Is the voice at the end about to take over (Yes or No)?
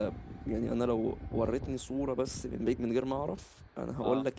No